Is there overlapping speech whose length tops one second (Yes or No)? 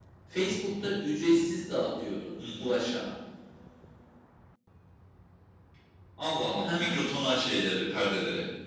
No